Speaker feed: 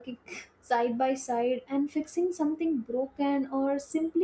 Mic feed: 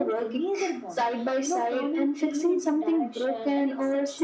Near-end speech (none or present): present